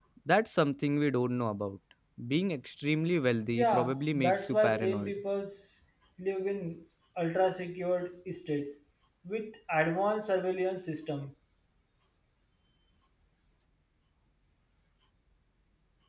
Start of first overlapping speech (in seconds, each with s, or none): 3.5 s